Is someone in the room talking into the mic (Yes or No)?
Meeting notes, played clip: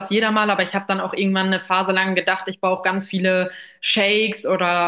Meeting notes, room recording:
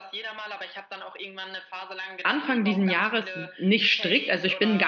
Yes